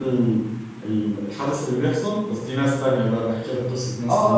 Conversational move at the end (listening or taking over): taking over